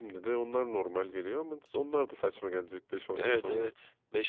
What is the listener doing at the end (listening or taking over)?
taking over